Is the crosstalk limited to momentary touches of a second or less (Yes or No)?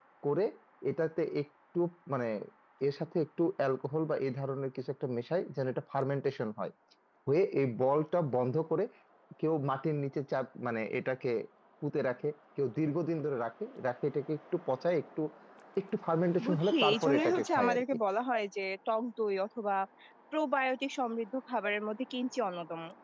No